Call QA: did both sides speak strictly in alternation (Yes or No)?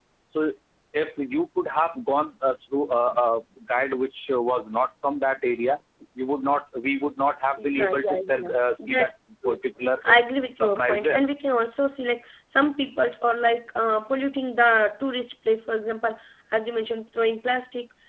No